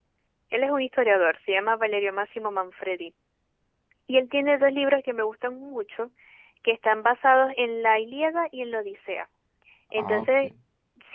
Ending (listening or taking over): listening